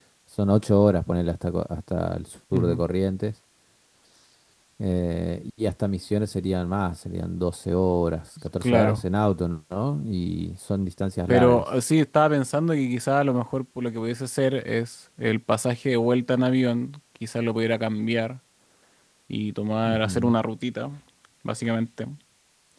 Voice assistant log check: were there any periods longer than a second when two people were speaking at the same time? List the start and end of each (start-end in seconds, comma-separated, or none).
none